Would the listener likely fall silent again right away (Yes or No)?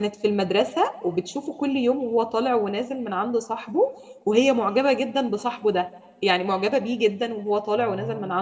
Yes